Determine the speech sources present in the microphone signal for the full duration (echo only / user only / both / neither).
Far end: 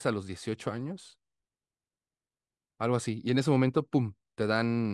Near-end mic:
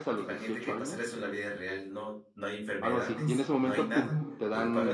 both